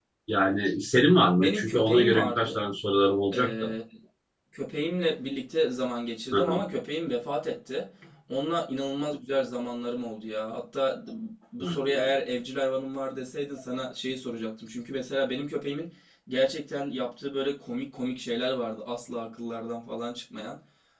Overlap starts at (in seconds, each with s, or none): 1.4 s